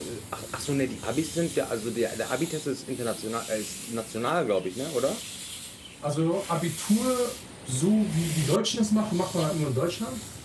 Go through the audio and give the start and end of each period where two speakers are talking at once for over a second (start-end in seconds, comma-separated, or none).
none